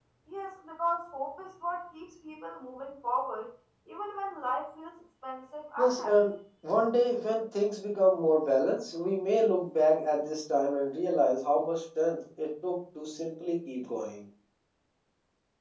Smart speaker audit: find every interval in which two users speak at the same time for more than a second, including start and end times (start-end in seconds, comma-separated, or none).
none